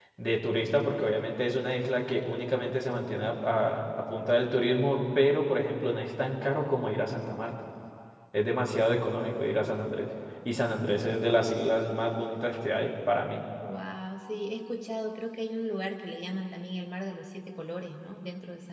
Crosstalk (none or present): none